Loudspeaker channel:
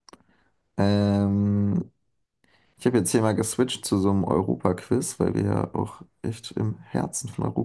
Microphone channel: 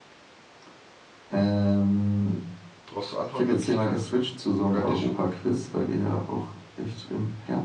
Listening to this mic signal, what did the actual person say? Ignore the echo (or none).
Brauchst du Antwortmöglichkeiten? Mogadischu?